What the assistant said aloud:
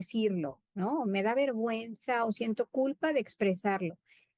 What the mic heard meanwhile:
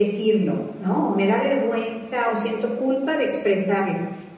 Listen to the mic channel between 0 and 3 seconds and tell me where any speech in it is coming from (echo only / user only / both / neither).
echo only